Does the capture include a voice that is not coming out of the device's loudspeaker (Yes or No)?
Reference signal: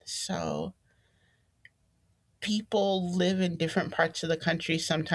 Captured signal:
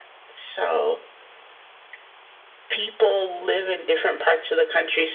No